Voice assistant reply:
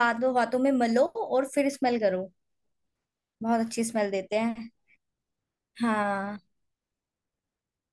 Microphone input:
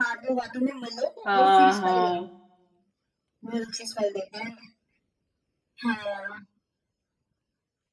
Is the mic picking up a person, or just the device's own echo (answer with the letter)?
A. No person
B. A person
B